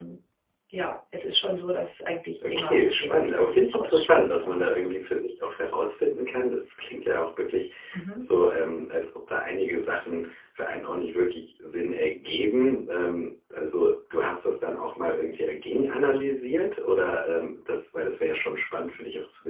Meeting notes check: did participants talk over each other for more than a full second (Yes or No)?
Yes